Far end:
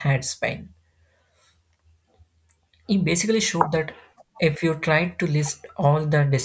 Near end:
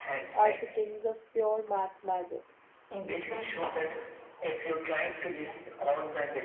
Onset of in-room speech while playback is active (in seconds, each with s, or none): 0.3 s